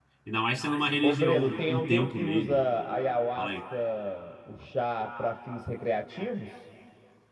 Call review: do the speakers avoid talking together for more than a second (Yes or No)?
No